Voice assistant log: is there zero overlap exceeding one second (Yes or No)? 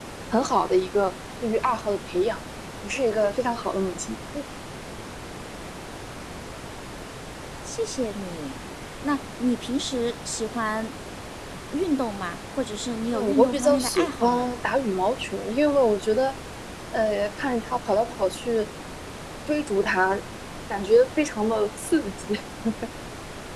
No